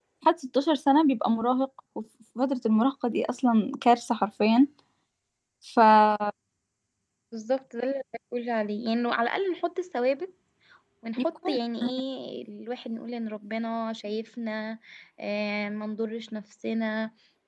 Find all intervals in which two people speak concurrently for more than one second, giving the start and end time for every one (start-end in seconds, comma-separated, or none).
none